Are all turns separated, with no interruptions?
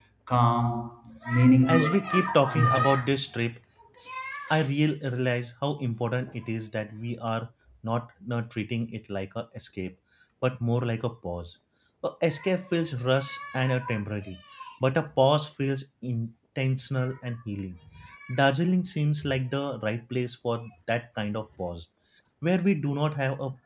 No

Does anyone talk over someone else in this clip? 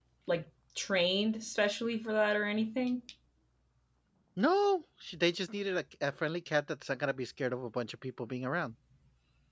No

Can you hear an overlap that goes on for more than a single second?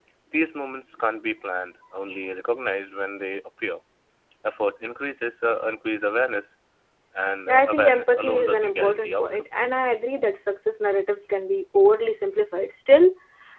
Yes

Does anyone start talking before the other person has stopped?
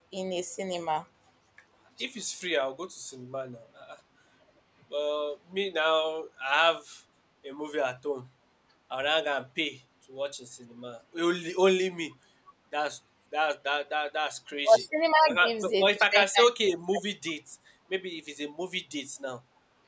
Yes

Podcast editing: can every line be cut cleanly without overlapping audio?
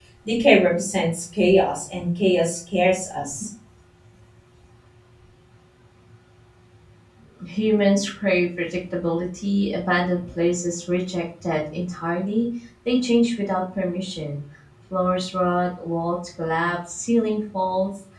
Yes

